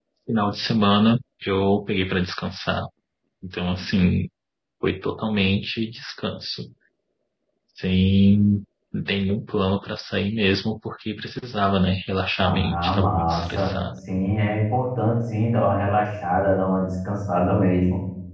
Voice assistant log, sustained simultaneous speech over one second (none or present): present